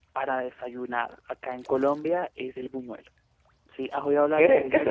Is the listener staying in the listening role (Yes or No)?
No